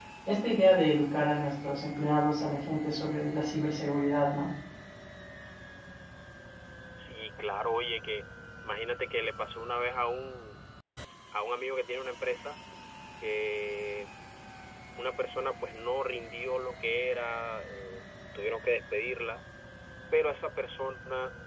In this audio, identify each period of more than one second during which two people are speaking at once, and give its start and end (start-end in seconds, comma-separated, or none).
none